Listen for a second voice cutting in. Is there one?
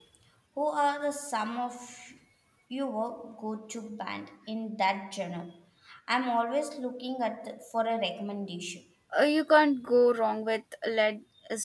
No

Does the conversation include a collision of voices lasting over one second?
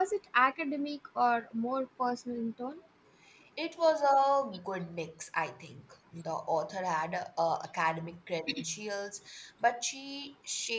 No

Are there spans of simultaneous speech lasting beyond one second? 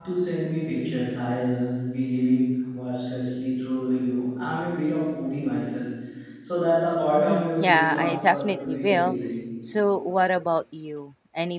Yes, from 7.2 s

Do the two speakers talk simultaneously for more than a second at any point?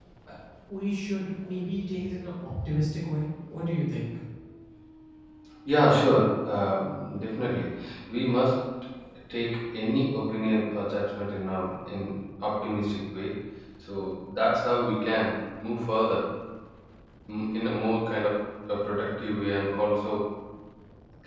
No

